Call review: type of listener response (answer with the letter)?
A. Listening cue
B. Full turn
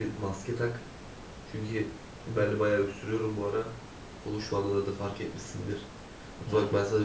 A